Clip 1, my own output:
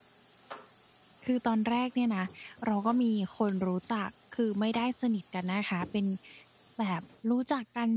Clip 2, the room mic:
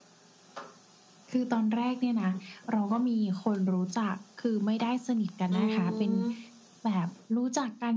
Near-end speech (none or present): present